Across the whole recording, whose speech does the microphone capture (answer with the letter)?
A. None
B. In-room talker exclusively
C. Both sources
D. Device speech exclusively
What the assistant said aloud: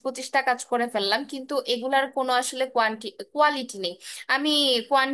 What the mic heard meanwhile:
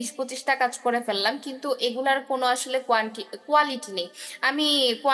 D